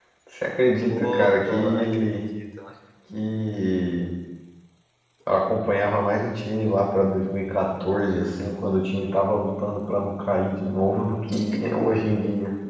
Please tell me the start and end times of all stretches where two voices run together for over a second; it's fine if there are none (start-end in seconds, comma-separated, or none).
0.9-2.2